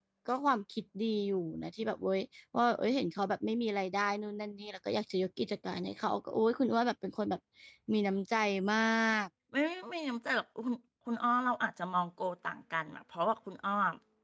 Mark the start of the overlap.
none

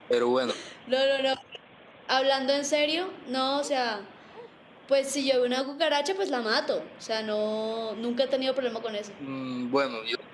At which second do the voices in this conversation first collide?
none

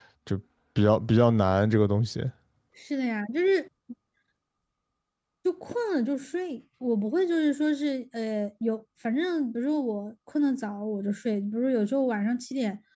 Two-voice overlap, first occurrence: none

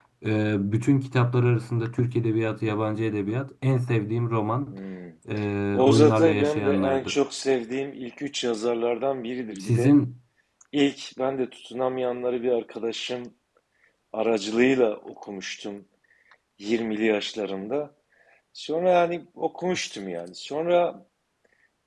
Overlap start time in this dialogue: 5.7 s

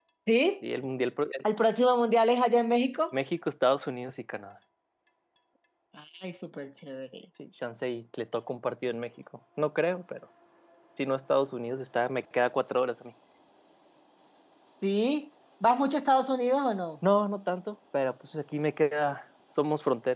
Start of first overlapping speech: none

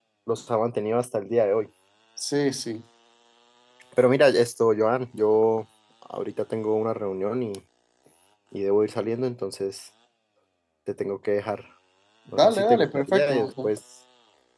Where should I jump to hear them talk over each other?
12.4 s

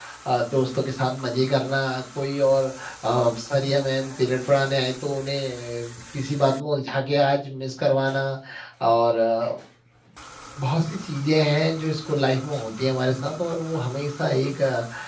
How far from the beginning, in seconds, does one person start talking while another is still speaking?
none

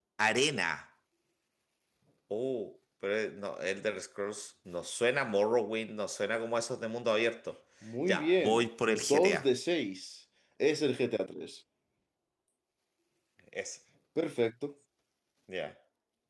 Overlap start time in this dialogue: 8.1 s

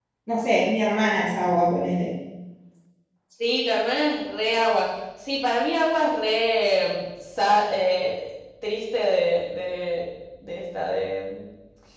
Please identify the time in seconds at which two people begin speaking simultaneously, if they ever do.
none

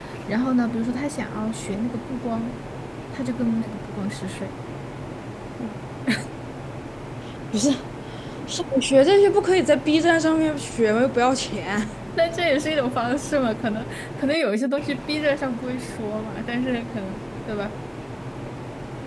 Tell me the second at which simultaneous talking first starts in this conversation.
none

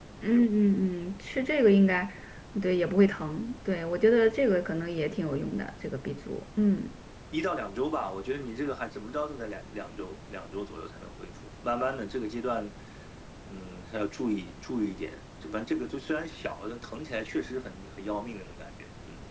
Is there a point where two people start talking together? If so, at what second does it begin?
none

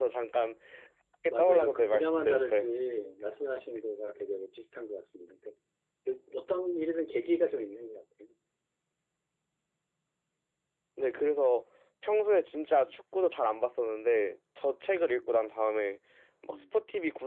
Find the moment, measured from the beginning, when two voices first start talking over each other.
1.4 s

